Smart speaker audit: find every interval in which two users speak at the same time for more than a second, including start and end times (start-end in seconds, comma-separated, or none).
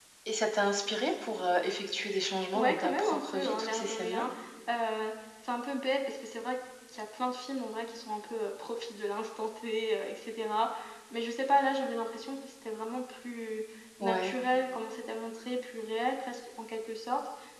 2.5-4.2